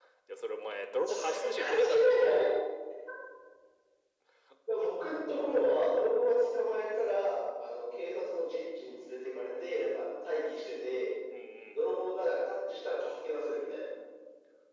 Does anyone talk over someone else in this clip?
Yes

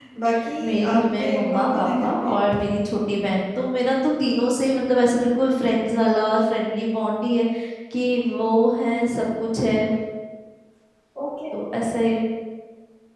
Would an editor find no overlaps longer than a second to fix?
No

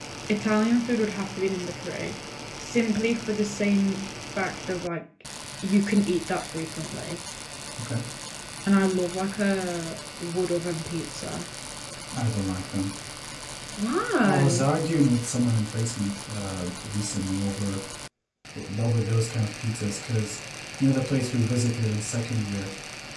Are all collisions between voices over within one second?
Yes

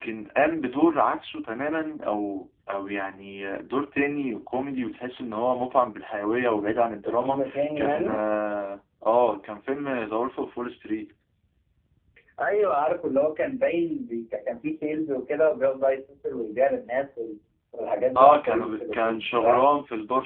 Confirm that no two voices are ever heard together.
No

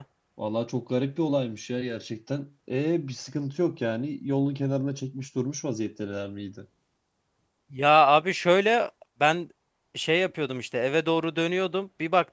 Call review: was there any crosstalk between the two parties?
No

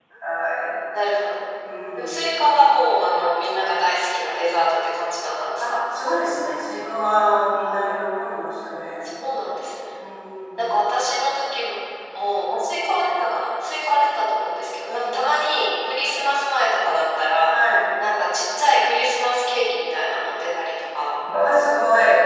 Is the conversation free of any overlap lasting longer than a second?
Yes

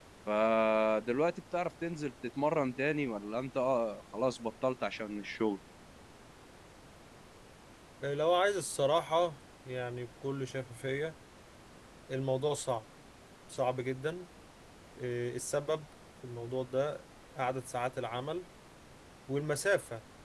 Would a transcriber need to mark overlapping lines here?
No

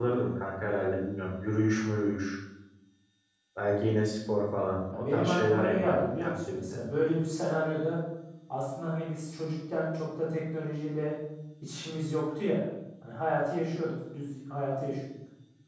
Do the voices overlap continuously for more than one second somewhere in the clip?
Yes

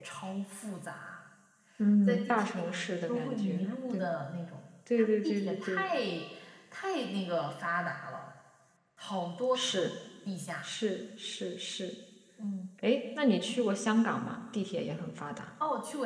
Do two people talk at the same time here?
Yes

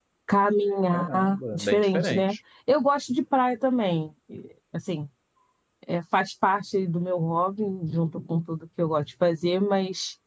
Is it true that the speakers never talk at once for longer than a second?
No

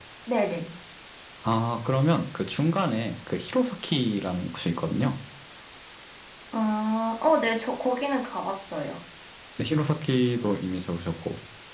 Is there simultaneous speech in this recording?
No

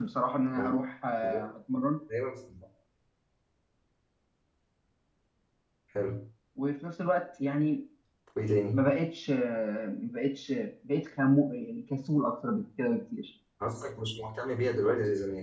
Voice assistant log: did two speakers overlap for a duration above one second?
No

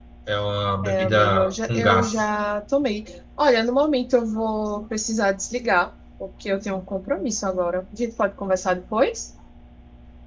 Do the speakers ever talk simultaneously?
Yes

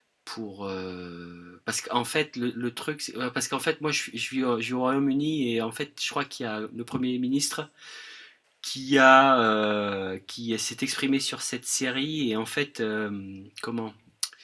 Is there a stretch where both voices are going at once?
No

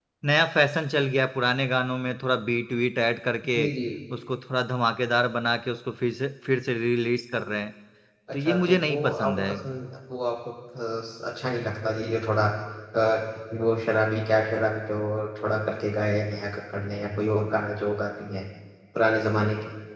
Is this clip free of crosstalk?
No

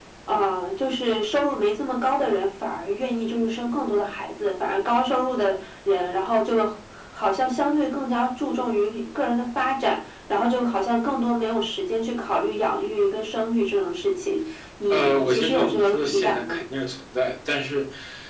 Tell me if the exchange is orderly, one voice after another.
No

